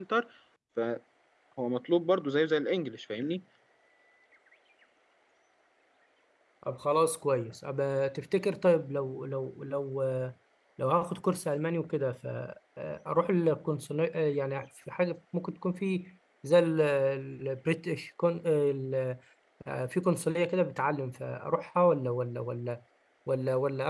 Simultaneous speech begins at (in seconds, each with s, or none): none